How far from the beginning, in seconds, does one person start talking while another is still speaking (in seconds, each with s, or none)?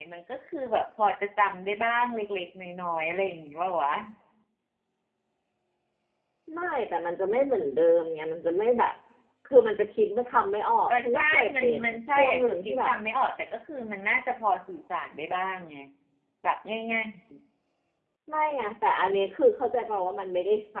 10.9 s